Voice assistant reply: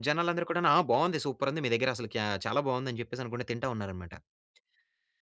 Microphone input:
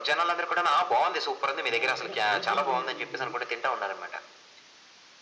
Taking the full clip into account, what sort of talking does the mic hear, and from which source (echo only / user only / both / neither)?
both